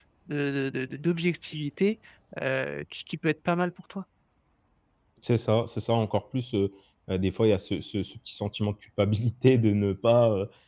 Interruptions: none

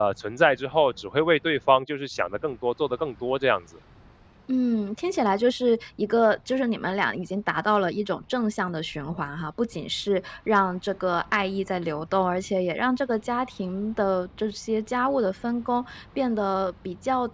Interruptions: none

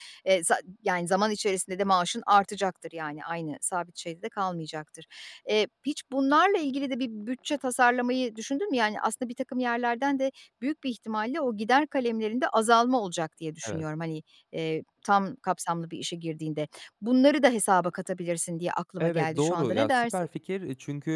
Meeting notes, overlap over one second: present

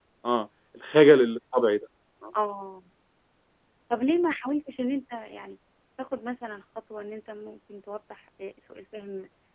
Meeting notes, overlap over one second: none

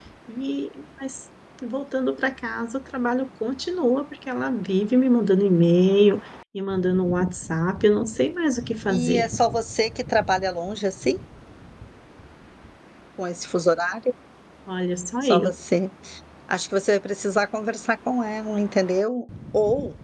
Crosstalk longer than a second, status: none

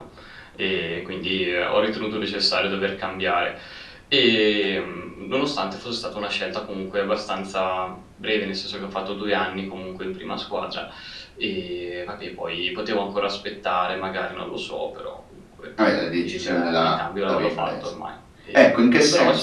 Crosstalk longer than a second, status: present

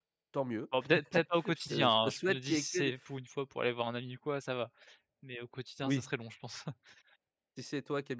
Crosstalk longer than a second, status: present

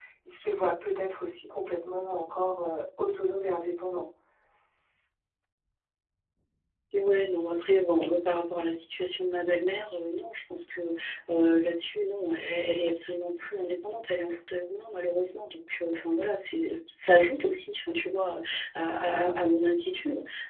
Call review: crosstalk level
none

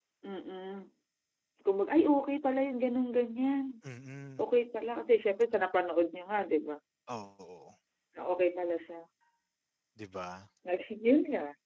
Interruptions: none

